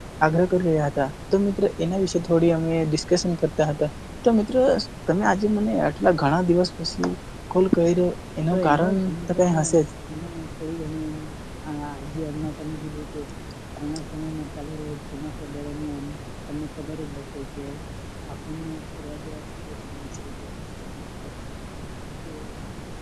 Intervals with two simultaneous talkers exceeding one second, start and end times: 8.5-9.8

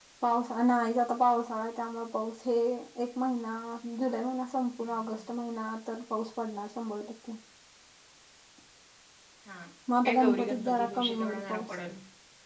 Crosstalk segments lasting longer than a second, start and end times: 10.0-11.8

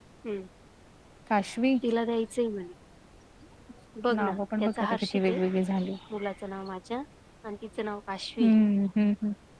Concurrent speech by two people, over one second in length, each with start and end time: 4.2-5.4

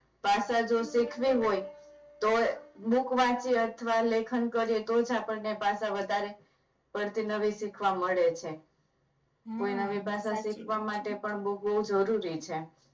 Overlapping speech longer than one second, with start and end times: 9.6-11.0

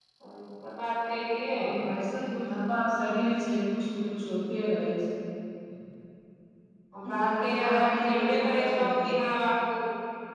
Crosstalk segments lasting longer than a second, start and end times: 7.2-9.0

